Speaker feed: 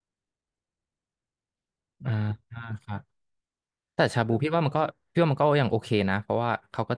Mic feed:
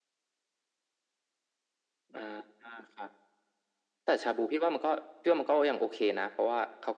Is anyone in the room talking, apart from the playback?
No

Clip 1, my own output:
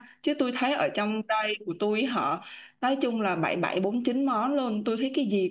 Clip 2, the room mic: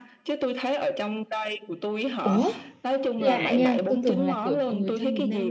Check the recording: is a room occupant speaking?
Yes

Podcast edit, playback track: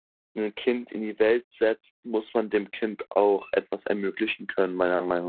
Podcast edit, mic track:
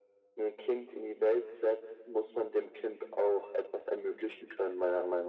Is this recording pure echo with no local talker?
Yes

